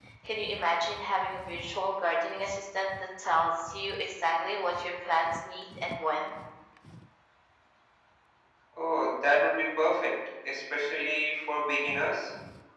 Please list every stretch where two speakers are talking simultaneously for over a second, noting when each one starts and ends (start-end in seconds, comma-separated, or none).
none